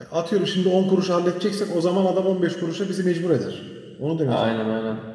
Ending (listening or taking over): taking over